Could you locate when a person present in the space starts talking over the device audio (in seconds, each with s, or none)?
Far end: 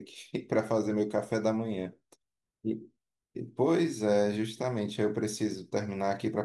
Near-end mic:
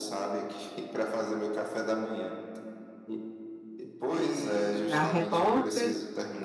4.1 s